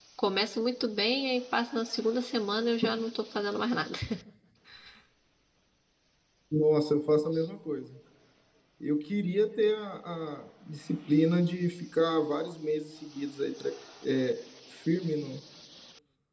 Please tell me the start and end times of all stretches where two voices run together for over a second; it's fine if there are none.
none

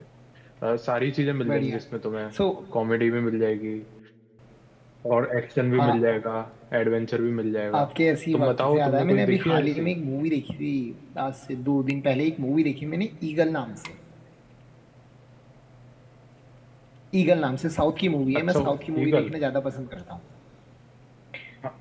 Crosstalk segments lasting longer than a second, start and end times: 8.3-9.9

